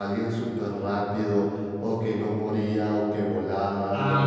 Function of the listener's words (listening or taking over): taking over